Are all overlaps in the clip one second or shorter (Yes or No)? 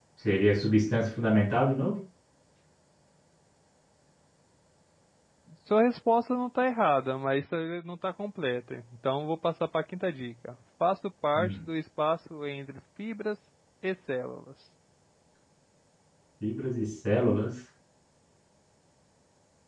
Yes